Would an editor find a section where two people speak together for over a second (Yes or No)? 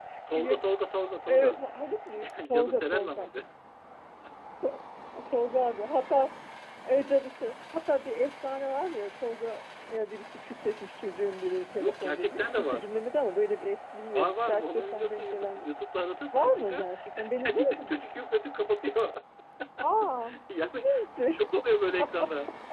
Yes